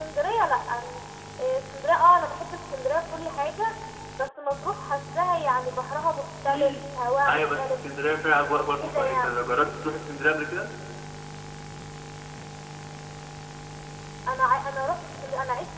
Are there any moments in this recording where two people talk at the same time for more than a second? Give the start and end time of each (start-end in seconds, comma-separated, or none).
none